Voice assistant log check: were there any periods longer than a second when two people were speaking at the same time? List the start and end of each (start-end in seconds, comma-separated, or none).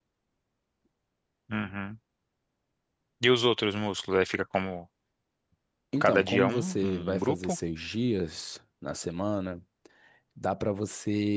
6.0-7.6